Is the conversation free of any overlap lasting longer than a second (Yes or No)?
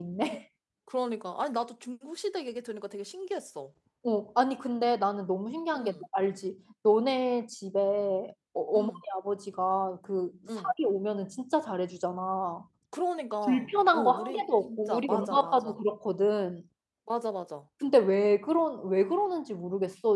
No